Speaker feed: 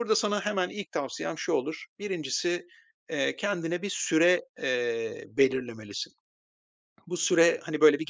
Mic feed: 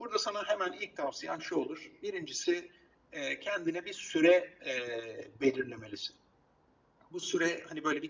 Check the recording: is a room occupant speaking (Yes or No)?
No